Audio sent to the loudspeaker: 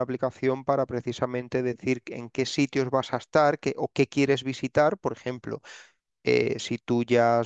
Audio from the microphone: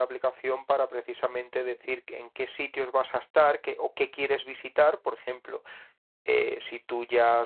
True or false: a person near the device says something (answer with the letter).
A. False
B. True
A